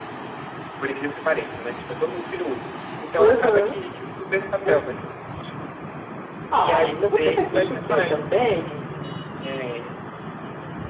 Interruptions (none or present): present